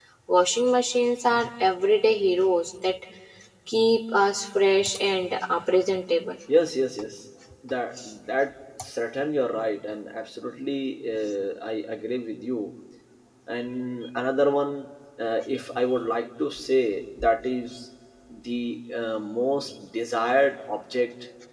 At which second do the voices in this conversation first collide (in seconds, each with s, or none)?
none